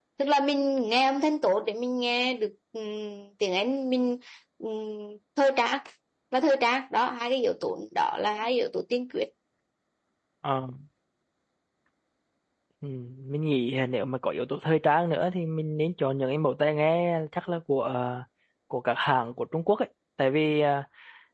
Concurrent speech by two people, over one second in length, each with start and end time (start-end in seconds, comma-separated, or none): none